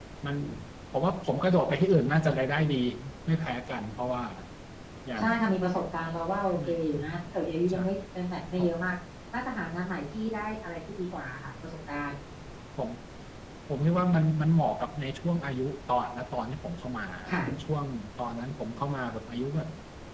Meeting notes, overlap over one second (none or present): none